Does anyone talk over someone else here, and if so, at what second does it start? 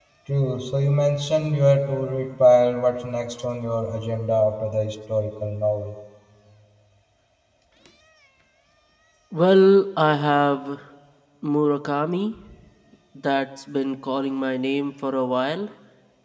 none

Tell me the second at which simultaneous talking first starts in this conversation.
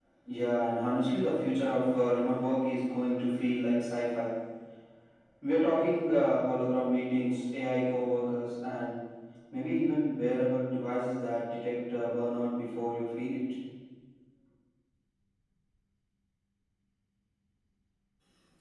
none

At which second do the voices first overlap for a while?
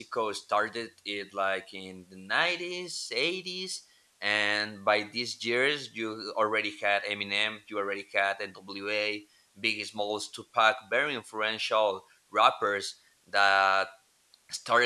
none

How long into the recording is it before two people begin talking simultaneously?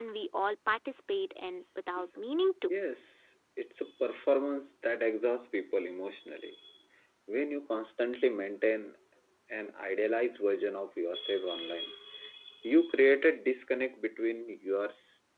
none

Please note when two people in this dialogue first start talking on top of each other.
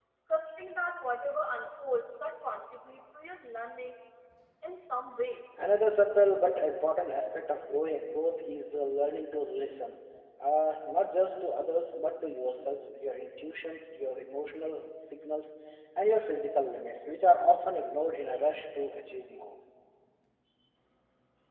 none

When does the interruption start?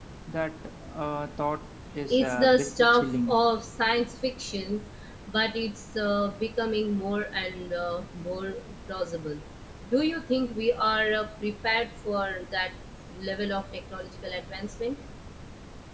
2 s

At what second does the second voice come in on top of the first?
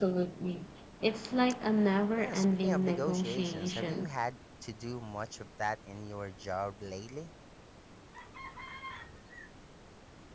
2 s

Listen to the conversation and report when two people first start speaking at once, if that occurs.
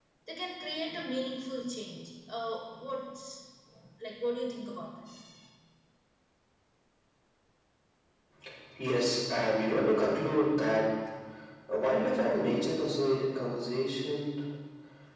none

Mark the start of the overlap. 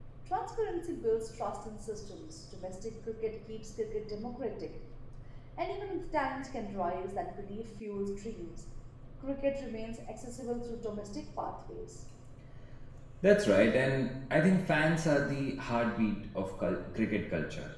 none

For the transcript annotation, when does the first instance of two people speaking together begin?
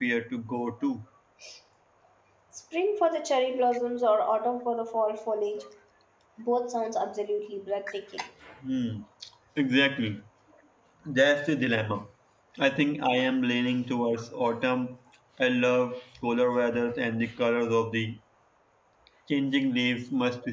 none

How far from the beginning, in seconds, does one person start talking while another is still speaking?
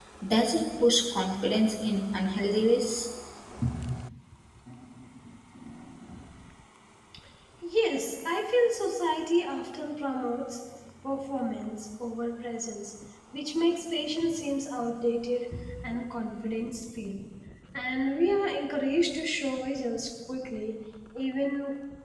none

